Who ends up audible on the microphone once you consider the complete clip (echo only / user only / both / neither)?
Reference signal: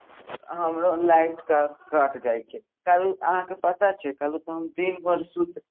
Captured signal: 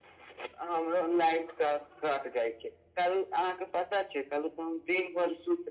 echo only